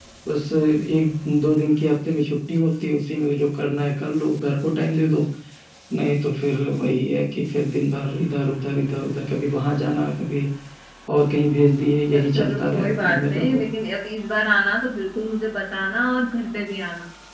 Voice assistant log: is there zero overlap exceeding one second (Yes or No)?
No